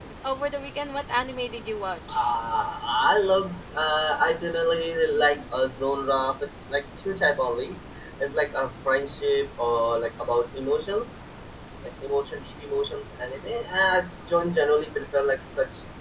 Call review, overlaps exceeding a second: none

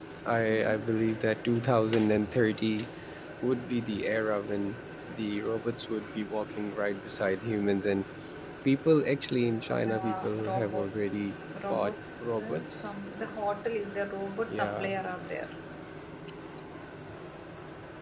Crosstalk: present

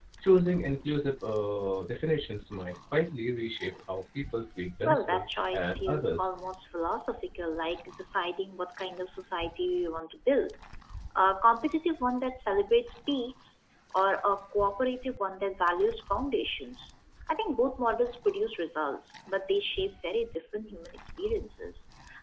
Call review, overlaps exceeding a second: present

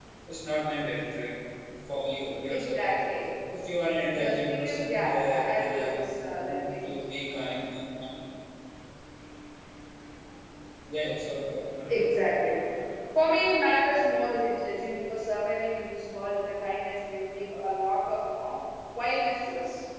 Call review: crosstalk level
present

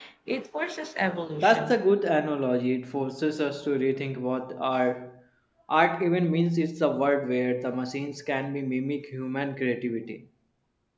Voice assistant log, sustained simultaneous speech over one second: none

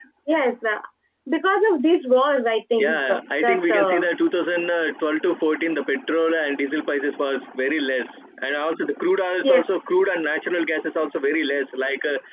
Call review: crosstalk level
present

